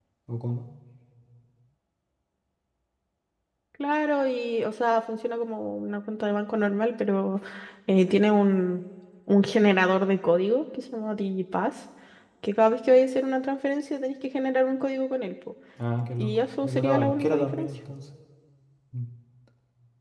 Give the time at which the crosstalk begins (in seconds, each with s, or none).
16.2 s